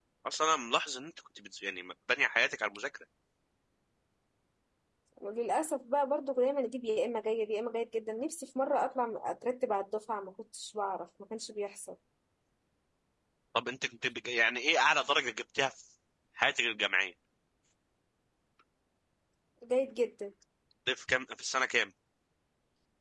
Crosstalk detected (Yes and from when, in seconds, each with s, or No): No